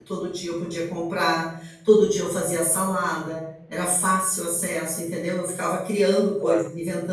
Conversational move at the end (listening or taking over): listening